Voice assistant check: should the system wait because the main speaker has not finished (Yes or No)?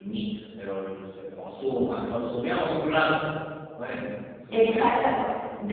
No